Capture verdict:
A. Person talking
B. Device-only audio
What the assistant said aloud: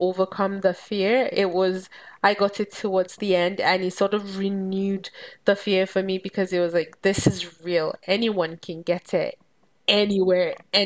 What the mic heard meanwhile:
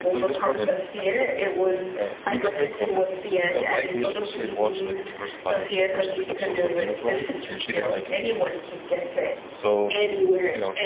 A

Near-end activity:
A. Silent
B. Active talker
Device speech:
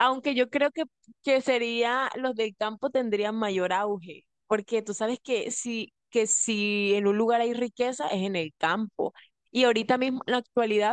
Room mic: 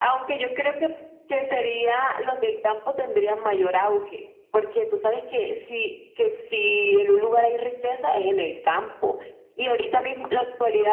A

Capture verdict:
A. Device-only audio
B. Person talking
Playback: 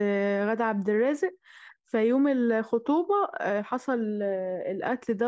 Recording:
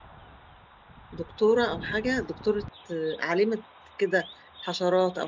B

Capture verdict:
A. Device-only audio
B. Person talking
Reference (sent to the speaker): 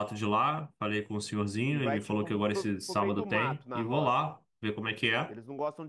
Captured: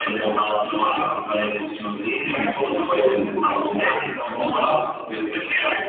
A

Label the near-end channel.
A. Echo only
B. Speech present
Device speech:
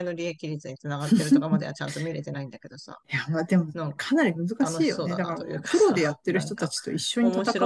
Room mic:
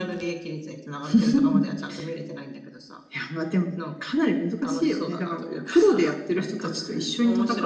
A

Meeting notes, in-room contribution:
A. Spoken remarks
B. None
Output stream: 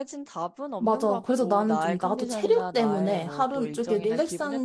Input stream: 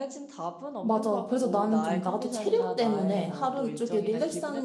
B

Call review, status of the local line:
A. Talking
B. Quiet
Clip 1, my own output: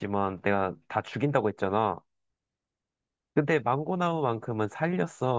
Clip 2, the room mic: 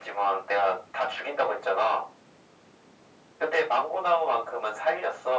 B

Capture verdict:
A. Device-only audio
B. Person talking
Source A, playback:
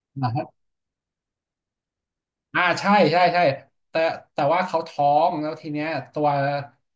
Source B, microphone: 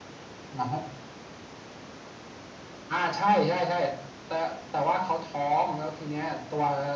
A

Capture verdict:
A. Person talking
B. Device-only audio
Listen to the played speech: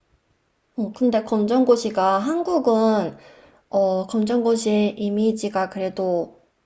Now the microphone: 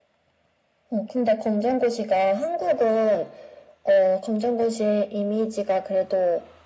B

